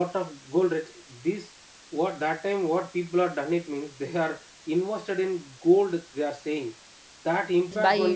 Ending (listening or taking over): listening